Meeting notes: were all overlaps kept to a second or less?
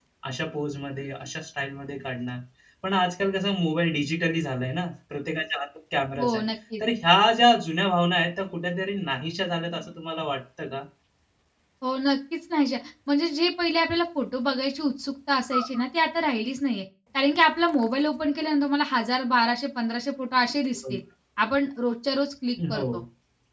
Yes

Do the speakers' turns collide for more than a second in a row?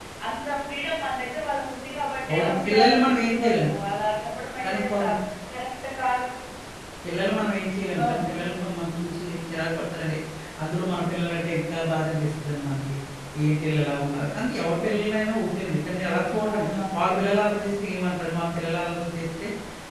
Yes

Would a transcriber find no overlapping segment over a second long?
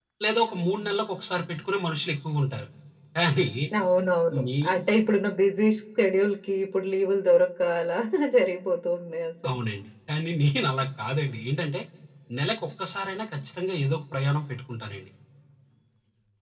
Yes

